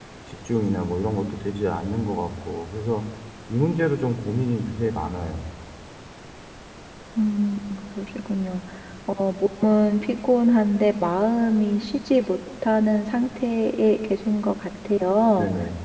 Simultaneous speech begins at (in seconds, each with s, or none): none